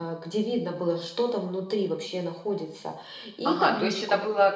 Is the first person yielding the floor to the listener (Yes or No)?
Yes